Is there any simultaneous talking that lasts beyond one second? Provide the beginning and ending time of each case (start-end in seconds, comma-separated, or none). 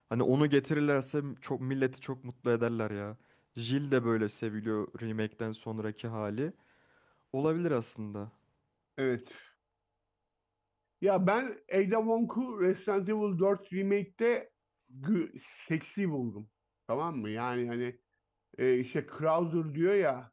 none